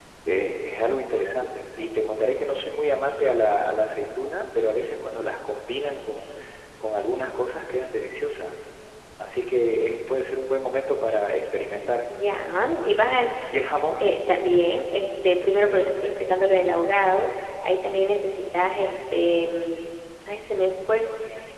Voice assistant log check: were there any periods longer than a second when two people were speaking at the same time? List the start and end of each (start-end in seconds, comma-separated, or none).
none